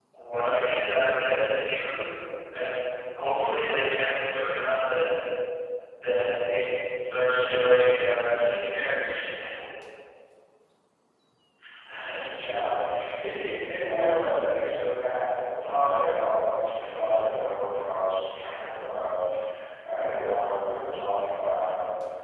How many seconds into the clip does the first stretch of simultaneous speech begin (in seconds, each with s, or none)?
none